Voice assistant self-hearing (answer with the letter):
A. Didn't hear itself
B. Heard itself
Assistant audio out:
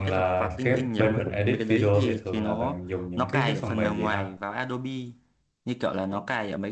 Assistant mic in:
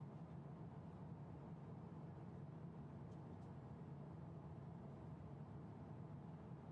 A